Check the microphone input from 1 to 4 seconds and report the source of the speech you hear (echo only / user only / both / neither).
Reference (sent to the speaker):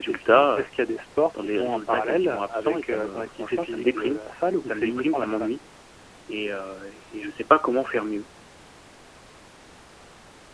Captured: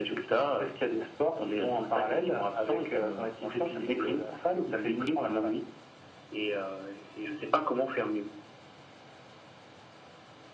echo only